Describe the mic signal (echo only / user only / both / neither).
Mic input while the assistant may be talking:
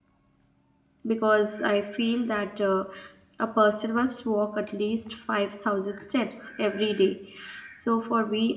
user only